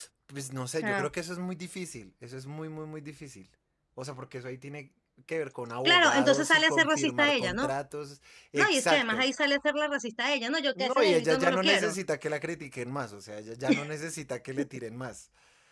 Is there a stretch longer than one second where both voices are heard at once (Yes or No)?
Yes